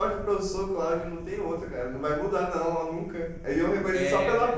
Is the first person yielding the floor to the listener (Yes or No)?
No